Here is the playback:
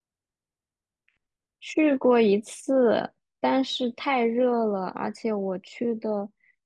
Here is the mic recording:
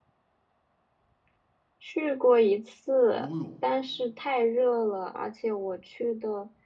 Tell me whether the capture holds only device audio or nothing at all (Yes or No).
No